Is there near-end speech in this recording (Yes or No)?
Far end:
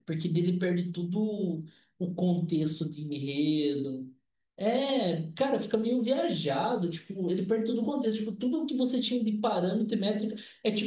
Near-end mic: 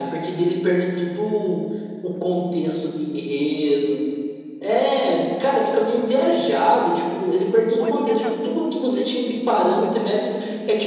Yes